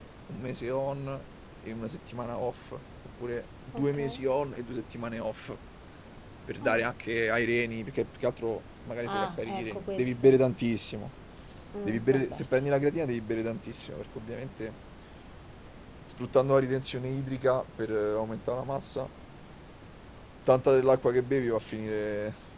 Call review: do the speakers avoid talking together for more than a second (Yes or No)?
No